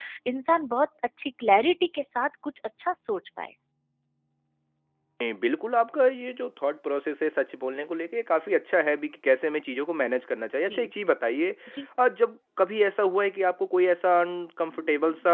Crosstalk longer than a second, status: none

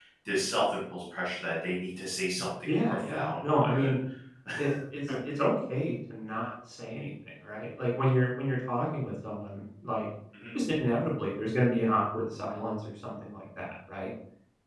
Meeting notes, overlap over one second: present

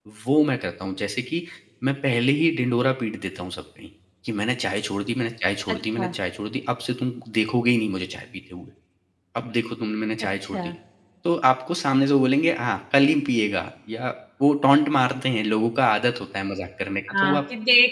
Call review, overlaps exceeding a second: none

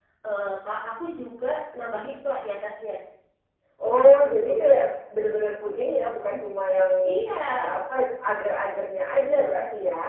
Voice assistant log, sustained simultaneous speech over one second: none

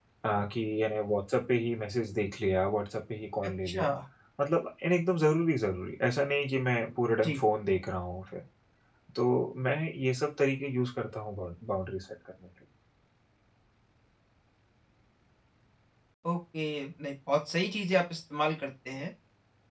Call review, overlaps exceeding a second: none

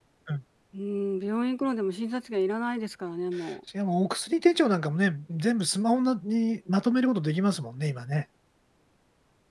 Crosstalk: none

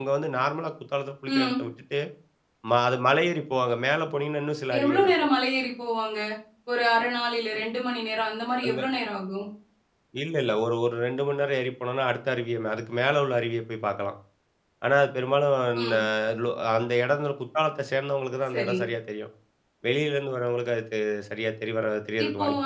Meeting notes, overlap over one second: none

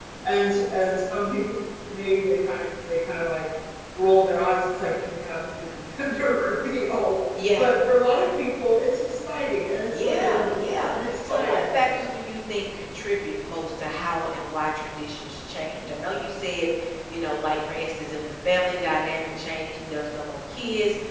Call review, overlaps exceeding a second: present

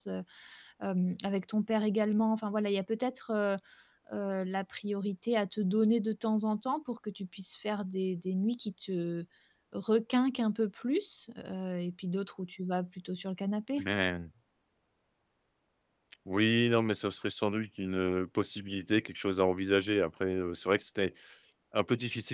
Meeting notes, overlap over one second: none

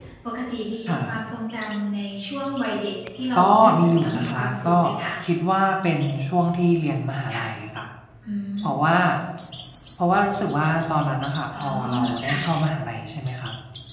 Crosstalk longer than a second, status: present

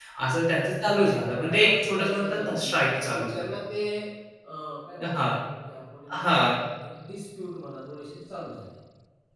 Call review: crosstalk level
present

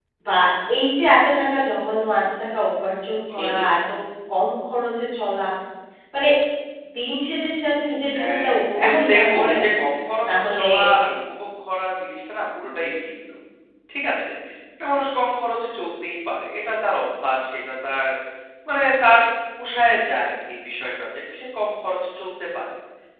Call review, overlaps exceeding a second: present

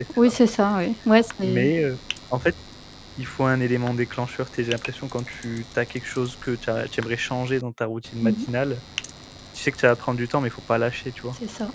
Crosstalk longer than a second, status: none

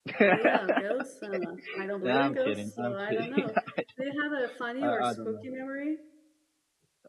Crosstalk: present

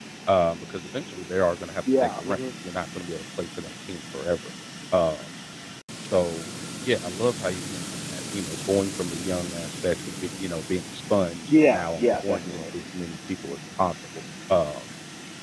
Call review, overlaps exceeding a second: present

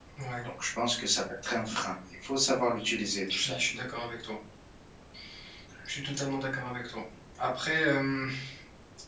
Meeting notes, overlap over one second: none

